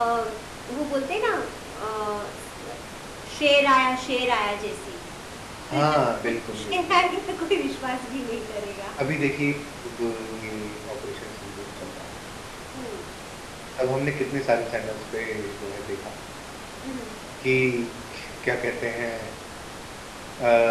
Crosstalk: present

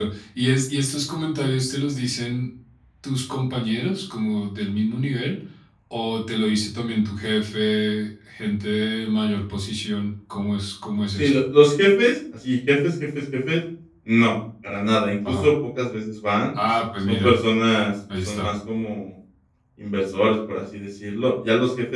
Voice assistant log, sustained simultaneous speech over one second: none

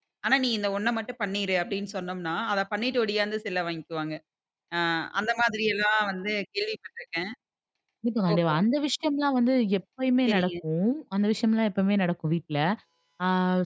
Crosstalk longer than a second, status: none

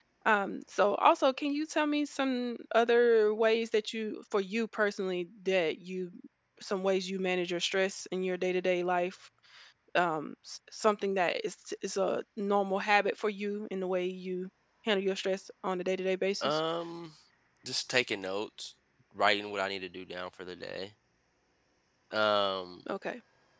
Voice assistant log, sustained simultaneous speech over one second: none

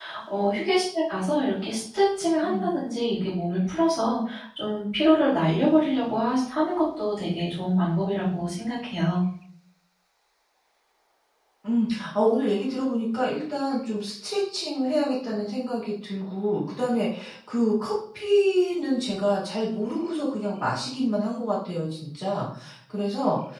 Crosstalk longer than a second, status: none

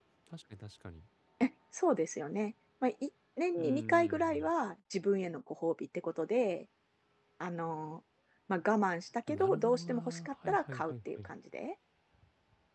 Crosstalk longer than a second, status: present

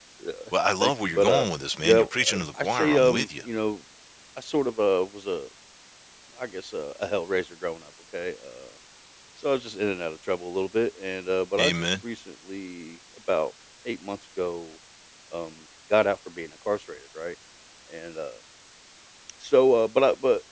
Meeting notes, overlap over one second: present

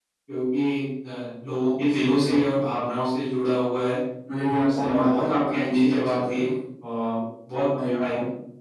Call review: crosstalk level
present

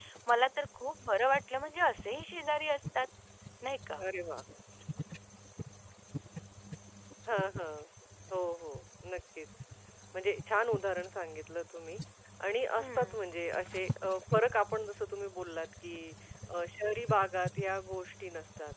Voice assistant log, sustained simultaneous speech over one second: none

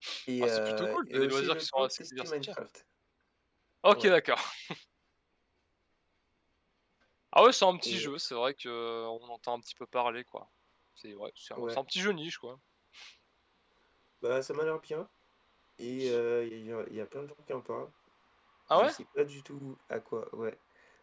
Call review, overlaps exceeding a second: present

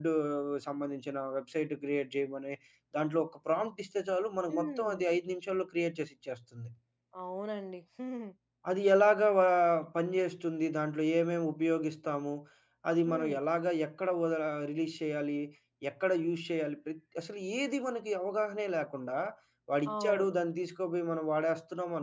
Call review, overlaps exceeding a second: none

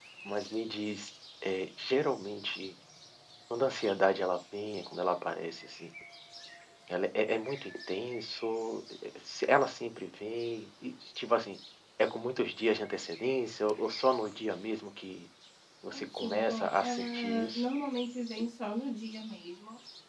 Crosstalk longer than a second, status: present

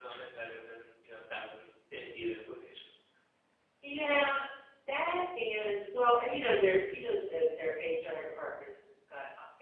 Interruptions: none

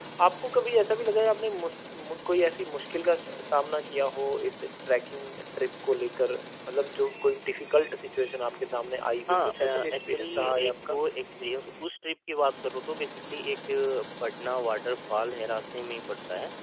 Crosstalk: present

